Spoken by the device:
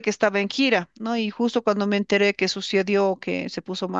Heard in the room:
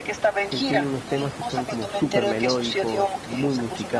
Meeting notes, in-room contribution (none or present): present